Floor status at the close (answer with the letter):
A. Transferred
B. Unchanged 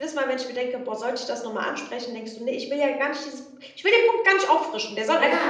A